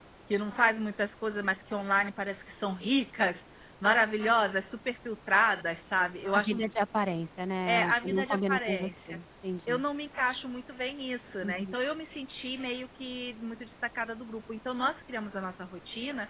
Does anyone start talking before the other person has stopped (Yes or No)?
Yes